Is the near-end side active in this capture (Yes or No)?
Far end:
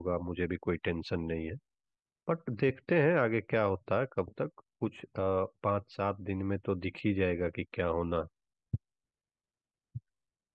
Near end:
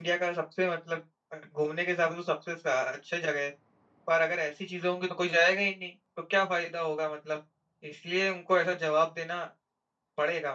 Yes